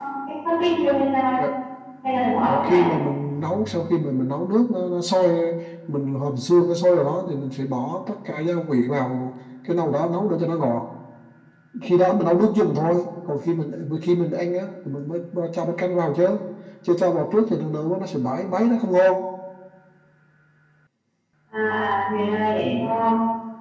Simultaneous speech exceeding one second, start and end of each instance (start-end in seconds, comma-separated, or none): none